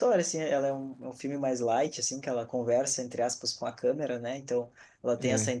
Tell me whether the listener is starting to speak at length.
No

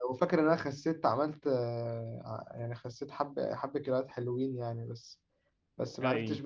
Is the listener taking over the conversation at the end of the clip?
No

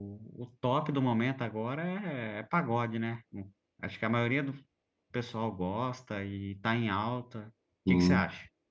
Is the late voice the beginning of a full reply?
Yes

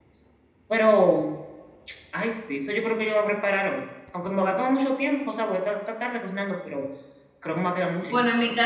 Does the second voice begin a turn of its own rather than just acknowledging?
Yes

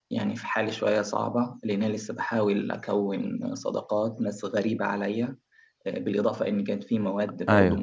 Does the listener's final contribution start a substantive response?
No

